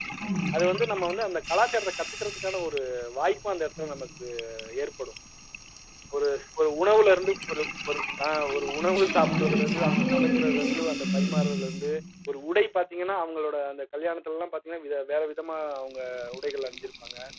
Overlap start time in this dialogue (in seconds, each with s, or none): 8.8 s